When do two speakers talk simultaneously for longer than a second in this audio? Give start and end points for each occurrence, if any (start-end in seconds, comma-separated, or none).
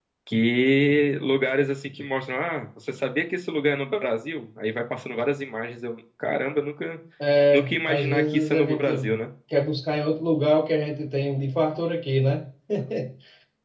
7.5-9.0